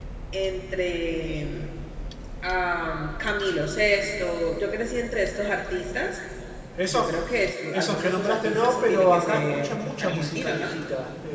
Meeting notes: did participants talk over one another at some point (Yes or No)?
Yes